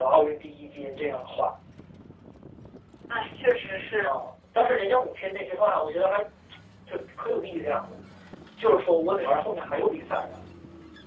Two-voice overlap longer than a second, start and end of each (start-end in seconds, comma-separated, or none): none